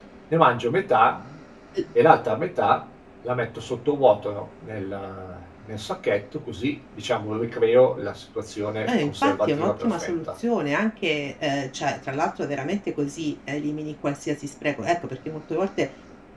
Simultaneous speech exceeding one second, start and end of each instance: 8.9-10.4

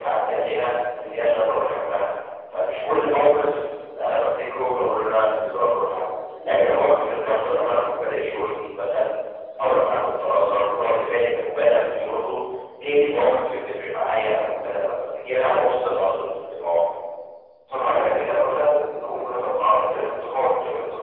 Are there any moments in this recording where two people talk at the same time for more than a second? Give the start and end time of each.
none

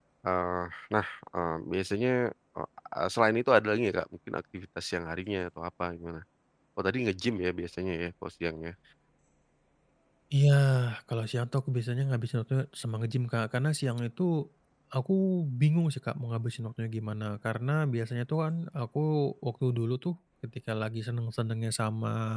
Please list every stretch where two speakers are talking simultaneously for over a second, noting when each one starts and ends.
none

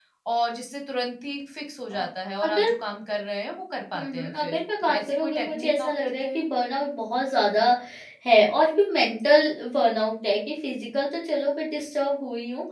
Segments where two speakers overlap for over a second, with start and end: 4.0-6.5

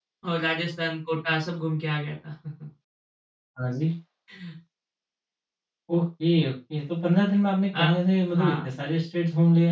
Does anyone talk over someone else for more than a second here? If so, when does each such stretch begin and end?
none

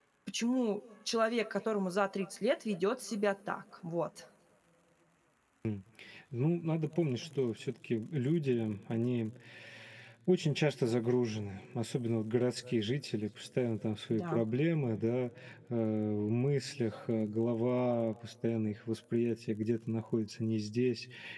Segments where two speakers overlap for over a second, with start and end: none

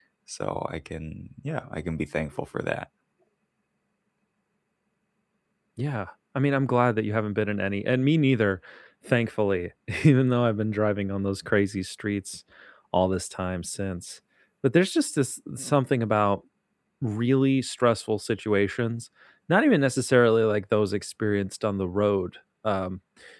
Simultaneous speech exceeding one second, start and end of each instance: none

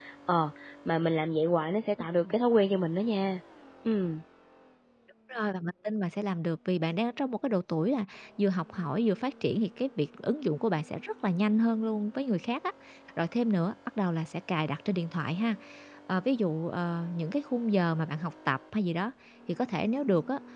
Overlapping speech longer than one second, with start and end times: none

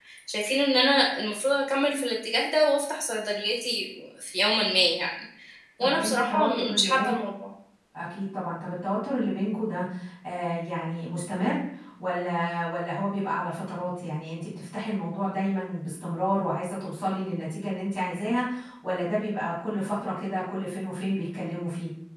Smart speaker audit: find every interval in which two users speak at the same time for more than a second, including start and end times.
5.8-7.2

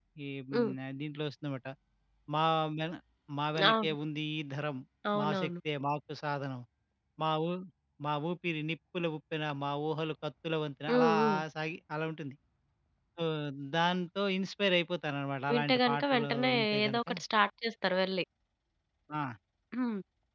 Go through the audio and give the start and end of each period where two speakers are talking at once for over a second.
15.5-17.0

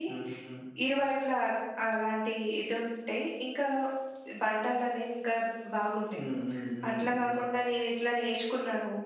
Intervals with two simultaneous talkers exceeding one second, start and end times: none

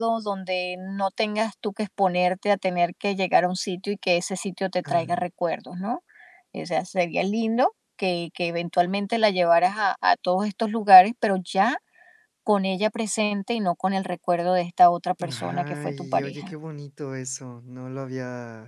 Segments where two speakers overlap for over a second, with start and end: 15.3-16.5

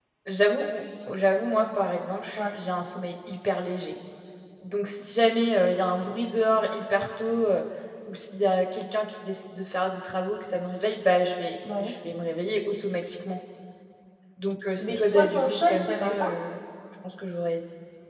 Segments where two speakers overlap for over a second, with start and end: 14.8-16.3

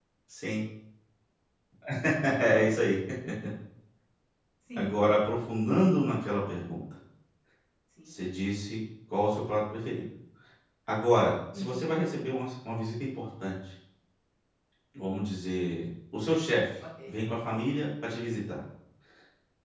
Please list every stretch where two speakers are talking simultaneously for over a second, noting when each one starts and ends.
none

